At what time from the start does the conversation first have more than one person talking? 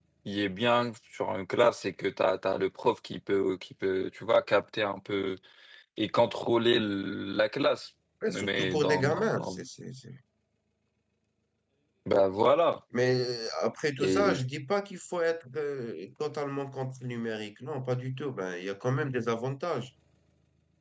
8 s

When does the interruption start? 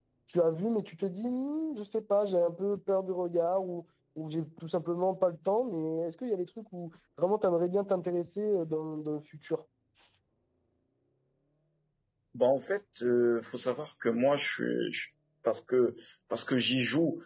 none

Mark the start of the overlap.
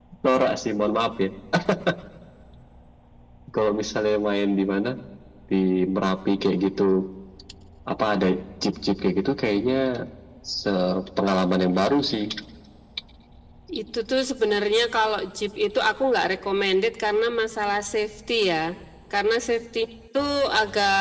none

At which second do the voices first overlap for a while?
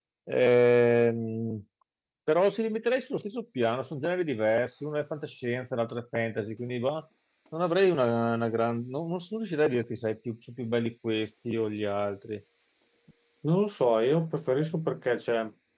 none

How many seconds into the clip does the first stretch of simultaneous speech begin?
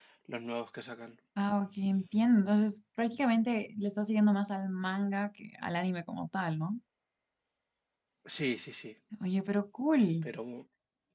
none

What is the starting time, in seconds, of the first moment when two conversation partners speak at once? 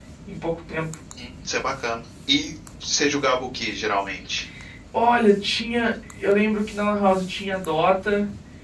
none

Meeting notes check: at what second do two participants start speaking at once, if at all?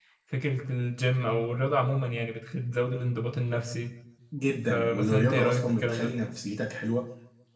5 s

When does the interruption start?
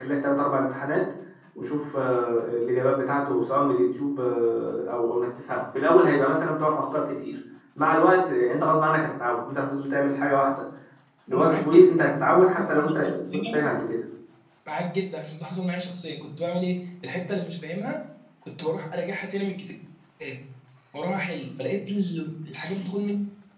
11 s

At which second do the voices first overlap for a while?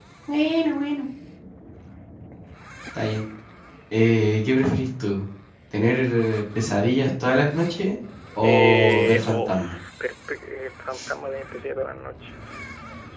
8 s

